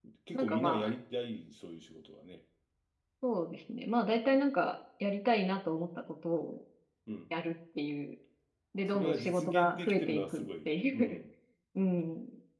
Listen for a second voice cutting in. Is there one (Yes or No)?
Yes